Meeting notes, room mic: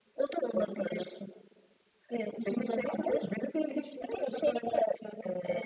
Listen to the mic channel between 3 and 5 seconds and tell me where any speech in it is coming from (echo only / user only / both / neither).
both